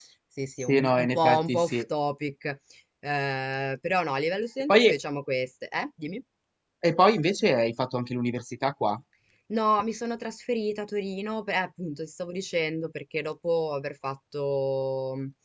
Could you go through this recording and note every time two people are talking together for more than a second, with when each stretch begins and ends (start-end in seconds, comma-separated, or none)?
0.6-1.8